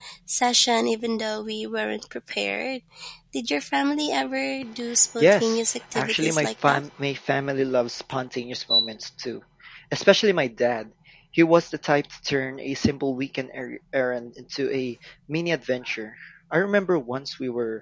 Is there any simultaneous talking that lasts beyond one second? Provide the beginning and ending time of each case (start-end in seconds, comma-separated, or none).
5.2-6.8